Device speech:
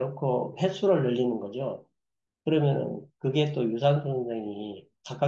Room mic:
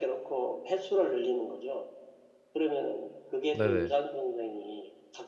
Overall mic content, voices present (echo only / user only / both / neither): both